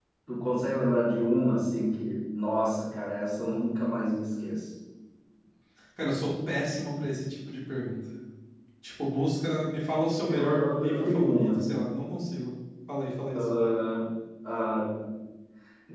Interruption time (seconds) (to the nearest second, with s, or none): 10 s